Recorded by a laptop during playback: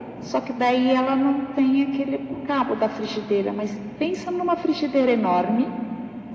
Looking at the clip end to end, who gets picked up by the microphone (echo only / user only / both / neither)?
echo only